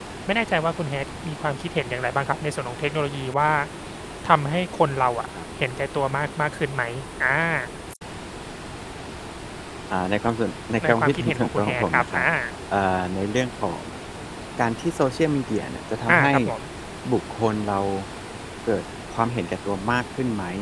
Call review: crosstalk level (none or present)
present